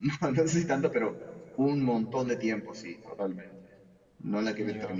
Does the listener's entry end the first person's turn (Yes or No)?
No